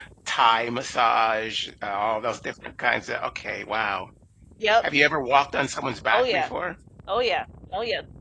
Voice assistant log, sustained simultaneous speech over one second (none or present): none